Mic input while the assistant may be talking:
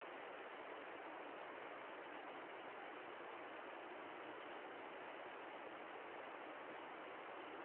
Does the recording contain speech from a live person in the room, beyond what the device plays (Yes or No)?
No